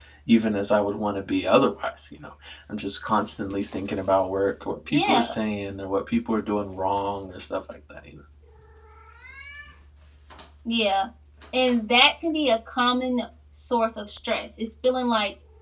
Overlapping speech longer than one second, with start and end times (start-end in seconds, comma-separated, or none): none